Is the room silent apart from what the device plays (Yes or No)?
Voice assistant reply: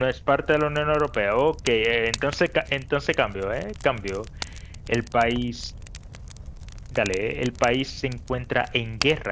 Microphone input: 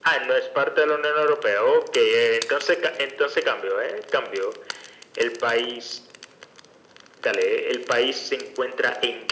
Yes